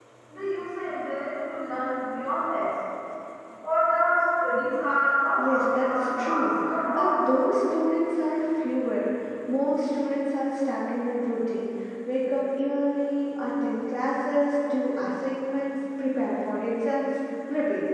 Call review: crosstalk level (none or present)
present